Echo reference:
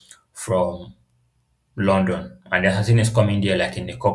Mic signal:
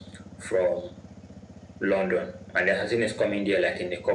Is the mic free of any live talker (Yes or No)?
Yes